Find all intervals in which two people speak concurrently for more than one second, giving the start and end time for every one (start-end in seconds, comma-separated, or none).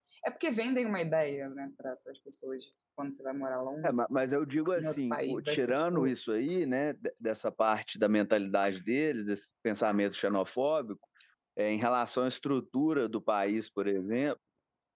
4.8-6.1